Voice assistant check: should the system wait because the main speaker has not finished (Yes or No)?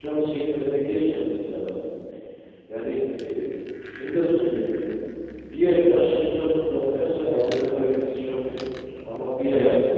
Yes